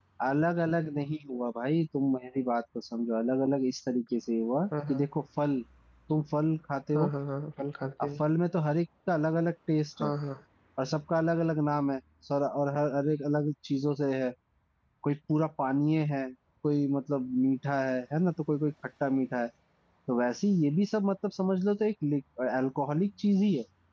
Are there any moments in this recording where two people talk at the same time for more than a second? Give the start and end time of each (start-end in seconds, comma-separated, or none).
none